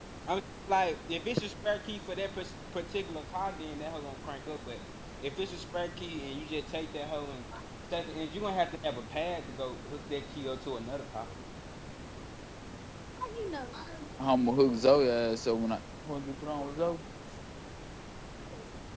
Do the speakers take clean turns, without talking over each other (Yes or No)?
Yes